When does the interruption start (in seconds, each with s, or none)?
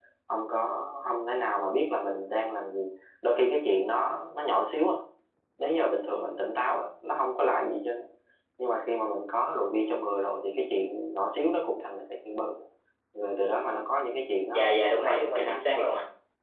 14.5 s